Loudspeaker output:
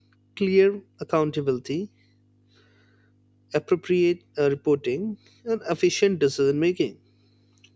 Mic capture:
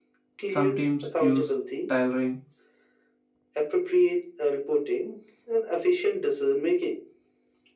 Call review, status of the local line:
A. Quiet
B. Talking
B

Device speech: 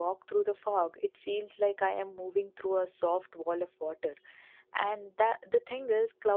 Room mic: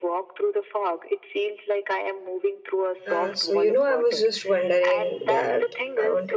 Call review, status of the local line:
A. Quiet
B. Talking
B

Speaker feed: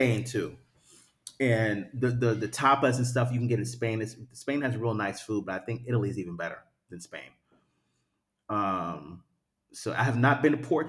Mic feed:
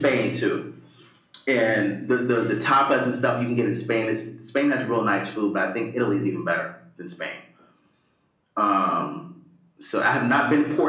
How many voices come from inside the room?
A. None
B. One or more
A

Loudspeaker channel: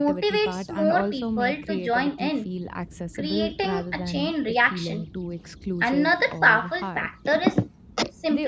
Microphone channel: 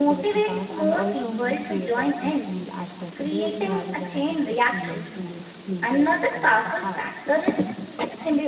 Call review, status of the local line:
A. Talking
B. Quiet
B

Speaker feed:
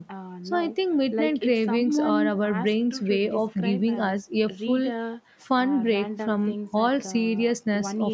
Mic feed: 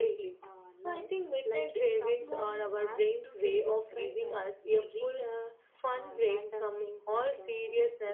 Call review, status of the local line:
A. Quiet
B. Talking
A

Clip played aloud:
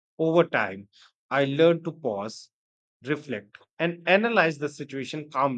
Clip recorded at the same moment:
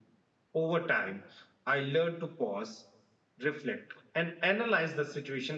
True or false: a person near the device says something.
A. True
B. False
B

